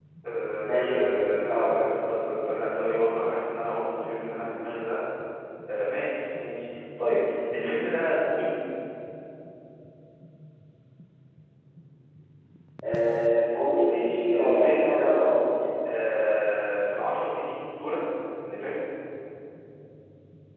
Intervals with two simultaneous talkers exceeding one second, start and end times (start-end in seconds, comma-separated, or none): 0.6-1.9, 13.8-15.2